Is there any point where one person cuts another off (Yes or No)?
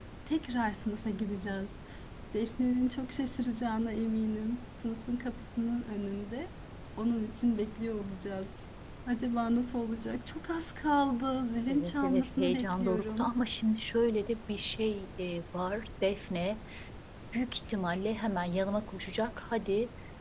Yes